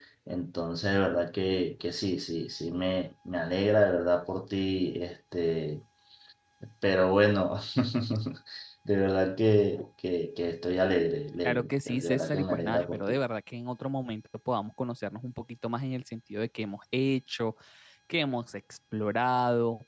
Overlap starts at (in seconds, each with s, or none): 11.4 s